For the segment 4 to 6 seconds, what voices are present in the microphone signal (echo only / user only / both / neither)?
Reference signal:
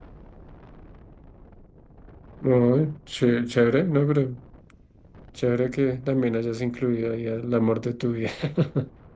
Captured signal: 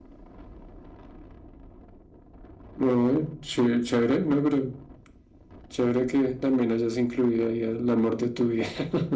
echo only